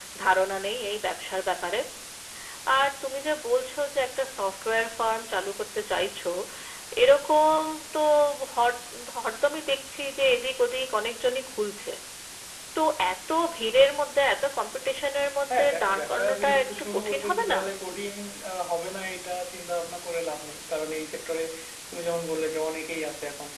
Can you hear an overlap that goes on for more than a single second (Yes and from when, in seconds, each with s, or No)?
Yes, from 15.5 s